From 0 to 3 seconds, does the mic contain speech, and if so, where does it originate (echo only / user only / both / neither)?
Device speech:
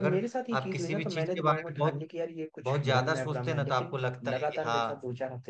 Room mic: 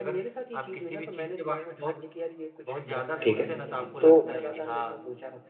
echo only